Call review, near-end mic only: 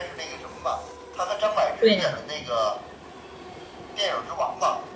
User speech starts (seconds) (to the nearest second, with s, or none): 2 s